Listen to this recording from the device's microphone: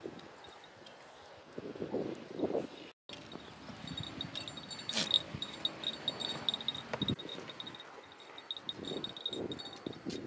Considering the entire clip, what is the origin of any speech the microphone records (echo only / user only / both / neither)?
neither